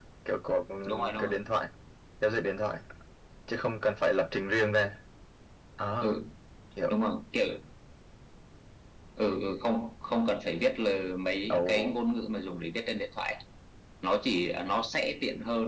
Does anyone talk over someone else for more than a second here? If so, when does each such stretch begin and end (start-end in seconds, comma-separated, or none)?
none